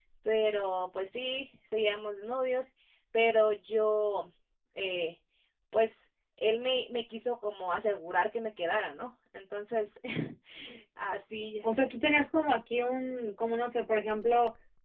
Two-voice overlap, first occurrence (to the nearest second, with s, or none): none